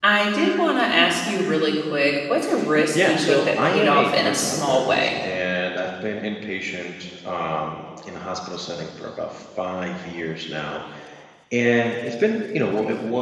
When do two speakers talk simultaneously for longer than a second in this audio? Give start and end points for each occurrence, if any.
2.9-5.1

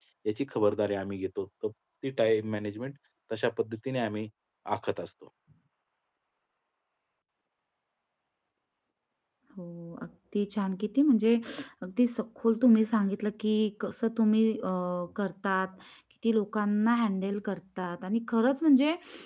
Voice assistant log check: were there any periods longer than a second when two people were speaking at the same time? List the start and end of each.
none

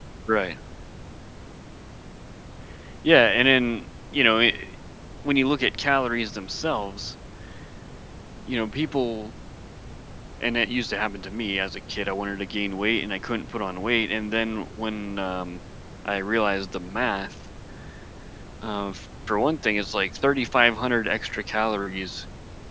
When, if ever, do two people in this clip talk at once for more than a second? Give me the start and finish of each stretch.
none

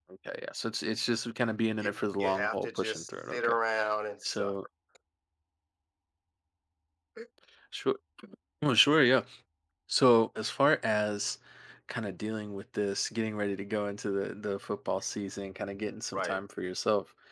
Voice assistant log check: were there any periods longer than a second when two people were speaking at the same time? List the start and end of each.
1.8-3.5

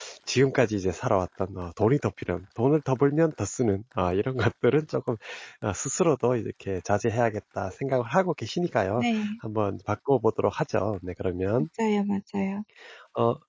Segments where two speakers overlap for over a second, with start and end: none

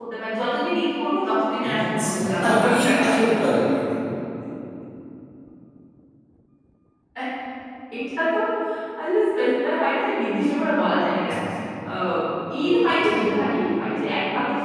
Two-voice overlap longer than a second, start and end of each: 1.8-3.2

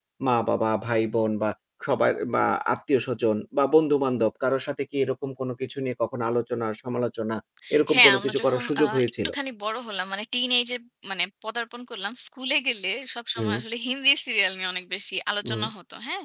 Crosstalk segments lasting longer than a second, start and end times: 7.9-9.3

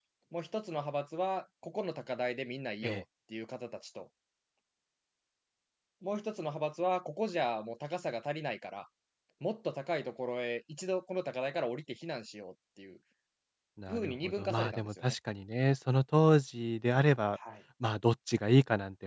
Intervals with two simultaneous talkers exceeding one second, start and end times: 13.9-15.2

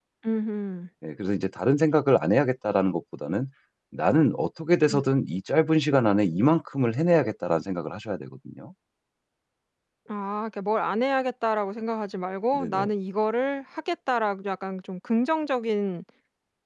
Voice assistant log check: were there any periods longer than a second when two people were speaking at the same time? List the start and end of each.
none

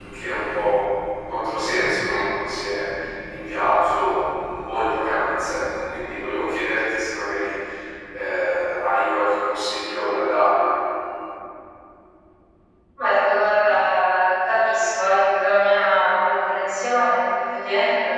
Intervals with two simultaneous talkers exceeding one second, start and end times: none

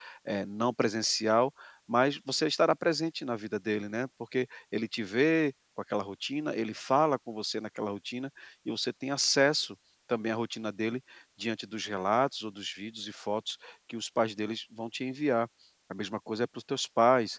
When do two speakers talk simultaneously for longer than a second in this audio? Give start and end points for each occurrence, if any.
none

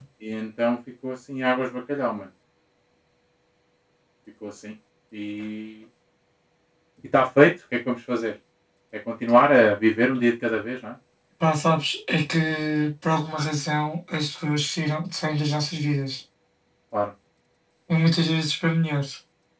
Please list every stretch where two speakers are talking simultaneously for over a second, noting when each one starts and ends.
none

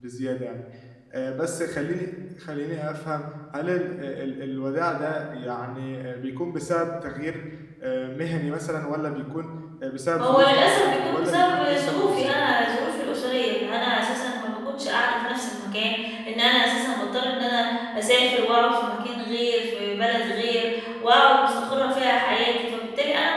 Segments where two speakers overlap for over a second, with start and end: 10.2-12.4

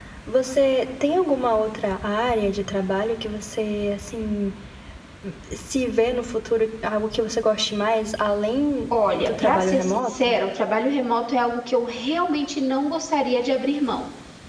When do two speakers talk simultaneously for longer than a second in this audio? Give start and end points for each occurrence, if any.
9.1-10.4

